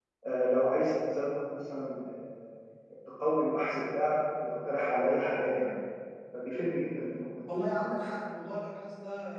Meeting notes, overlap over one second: none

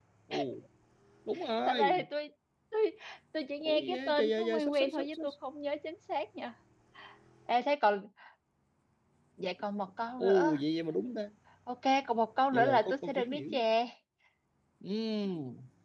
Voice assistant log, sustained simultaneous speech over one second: present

